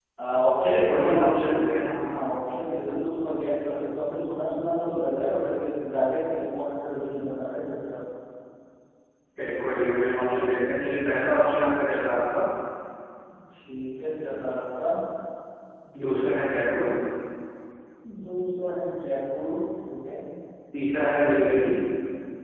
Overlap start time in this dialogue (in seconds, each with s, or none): 0.6 s